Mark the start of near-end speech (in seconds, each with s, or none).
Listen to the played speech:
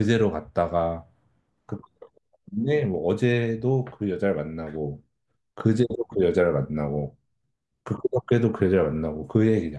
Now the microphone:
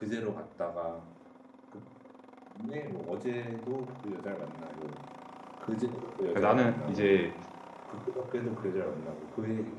6.3 s